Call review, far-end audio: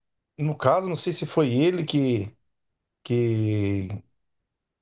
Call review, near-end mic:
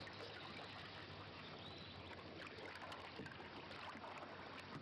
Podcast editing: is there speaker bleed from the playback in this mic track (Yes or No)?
No